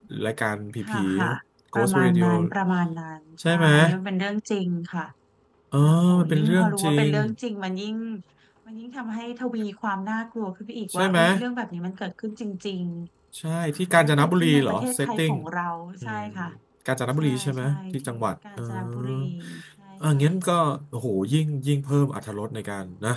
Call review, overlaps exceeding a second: present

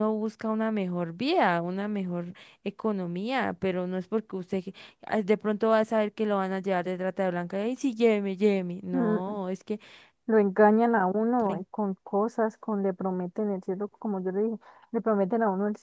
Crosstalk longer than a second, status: none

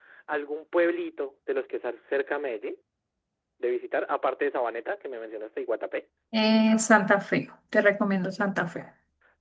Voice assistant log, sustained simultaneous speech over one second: none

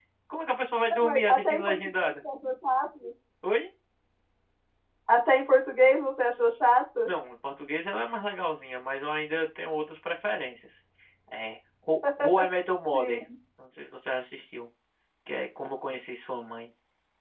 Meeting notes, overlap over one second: present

